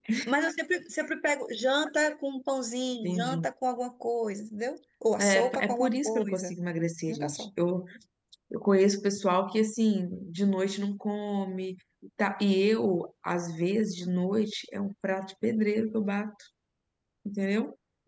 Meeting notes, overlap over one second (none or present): present